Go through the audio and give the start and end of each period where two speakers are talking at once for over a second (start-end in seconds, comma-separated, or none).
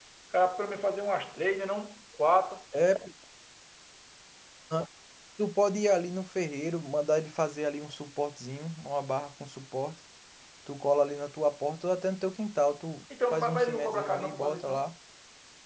13.3-14.9